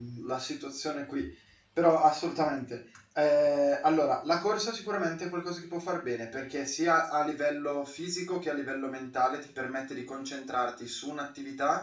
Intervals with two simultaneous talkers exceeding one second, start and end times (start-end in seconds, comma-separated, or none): none